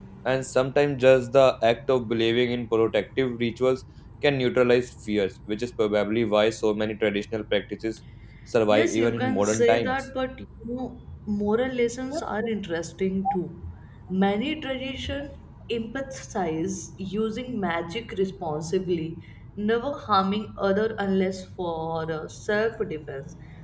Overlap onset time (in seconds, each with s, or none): 8.7 s